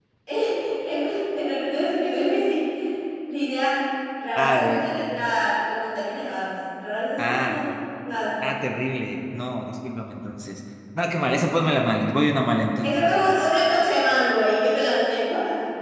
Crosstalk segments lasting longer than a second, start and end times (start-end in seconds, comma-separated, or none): none